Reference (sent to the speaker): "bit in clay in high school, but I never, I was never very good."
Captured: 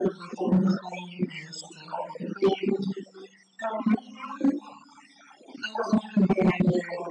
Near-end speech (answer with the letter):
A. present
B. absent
B